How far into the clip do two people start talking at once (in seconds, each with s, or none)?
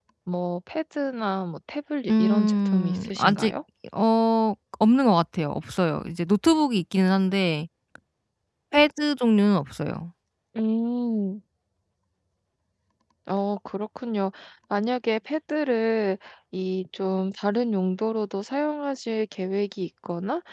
2.1 s